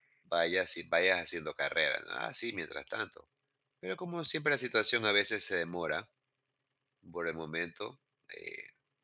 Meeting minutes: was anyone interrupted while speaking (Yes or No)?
No